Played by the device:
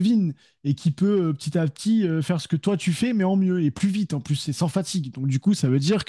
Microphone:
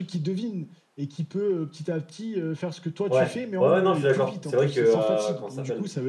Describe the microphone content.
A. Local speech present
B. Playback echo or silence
A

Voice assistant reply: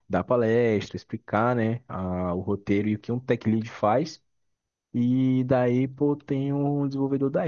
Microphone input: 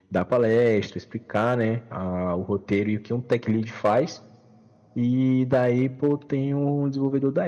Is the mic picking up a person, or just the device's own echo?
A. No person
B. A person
A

